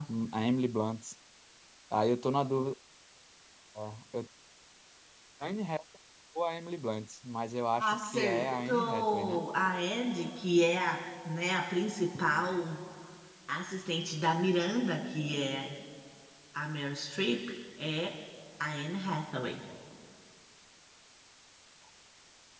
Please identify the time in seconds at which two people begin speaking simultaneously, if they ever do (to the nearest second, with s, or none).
8 s